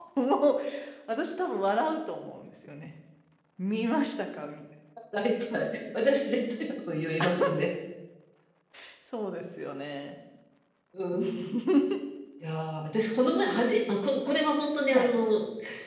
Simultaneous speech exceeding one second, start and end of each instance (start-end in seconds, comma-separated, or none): none